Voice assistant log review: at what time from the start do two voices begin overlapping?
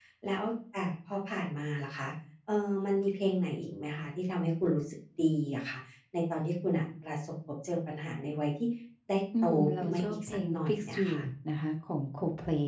9.4 s

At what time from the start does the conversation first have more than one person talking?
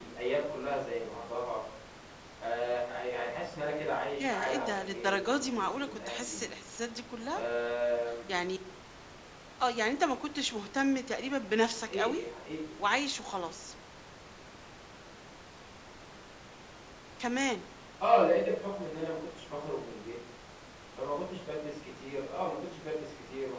4.2 s

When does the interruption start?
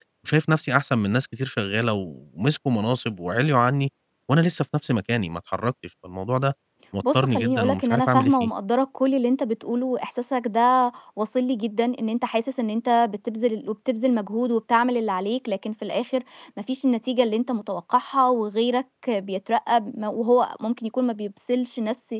7.1 s

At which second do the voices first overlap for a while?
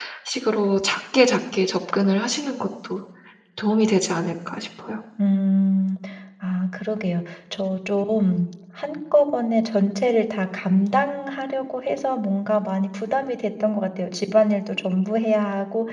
none

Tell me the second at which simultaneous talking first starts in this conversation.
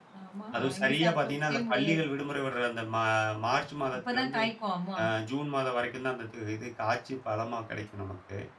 0.6 s

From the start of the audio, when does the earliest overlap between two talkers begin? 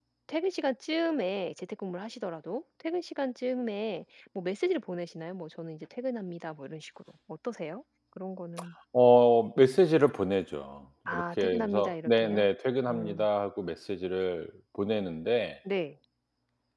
11.1 s

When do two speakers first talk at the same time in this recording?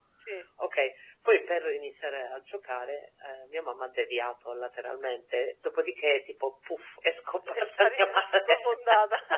7.5 s

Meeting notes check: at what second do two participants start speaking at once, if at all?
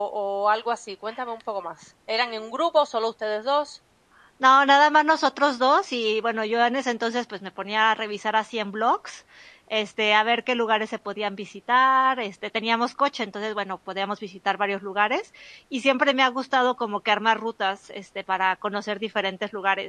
none

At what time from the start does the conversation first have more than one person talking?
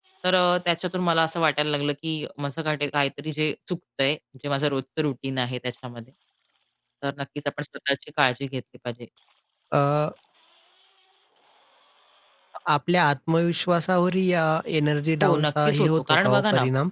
15.2 s

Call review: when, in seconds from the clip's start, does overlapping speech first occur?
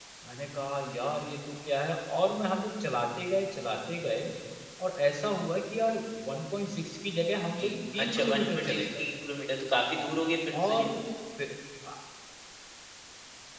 7.6 s

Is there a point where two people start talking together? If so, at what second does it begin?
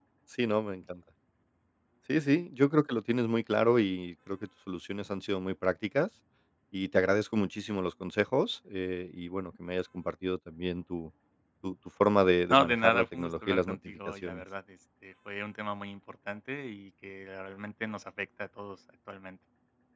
12.5 s

